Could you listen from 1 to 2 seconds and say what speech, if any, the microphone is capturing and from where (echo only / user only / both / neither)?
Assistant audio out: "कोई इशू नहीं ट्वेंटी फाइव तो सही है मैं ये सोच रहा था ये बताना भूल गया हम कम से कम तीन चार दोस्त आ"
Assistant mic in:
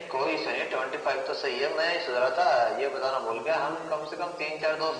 echo only